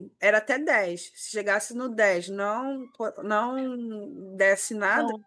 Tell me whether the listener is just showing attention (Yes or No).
Yes